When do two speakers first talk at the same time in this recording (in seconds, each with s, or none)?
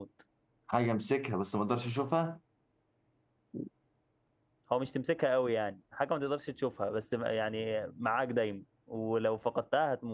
none